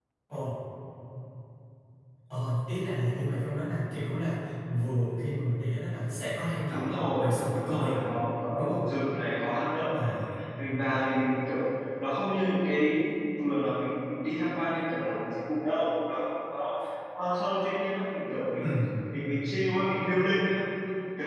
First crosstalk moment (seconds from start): 6.7 s

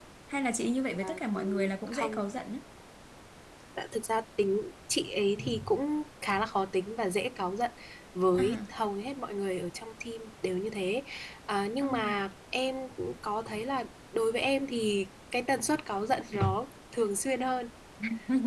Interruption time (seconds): 1.0 s

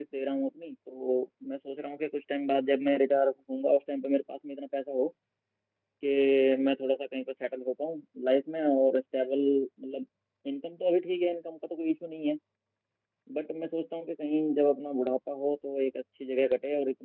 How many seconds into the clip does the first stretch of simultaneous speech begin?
none

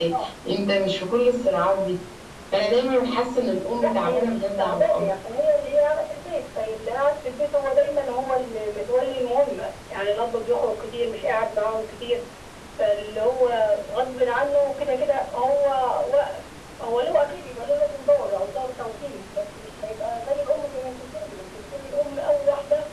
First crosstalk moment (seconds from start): 3.8 s

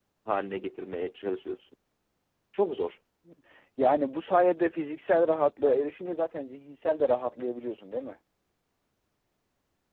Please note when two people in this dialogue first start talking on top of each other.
none

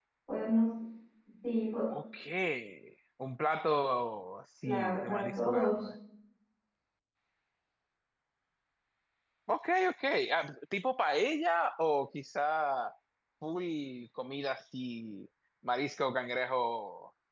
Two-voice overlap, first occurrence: 4.6 s

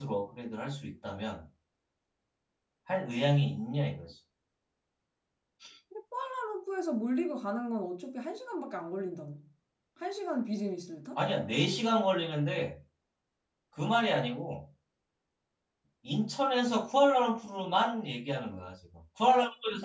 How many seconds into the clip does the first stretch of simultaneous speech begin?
none

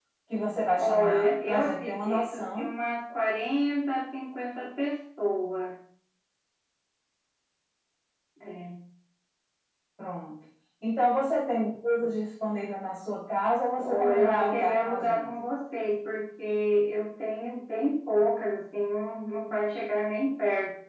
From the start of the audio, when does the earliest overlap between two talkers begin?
0.8 s

